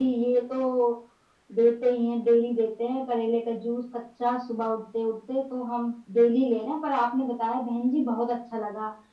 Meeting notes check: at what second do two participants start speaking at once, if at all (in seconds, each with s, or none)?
none